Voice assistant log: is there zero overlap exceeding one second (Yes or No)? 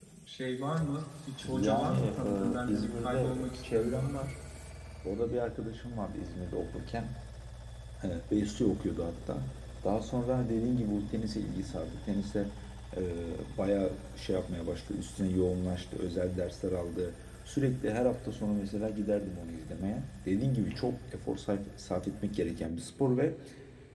No